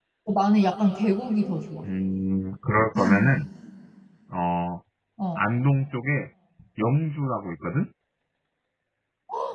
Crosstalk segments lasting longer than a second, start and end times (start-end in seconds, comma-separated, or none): none